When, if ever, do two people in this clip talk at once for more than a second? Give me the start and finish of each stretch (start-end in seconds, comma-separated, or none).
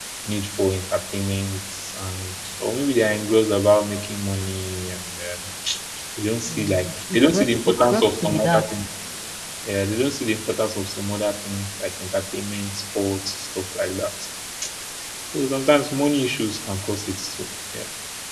6.5-8.6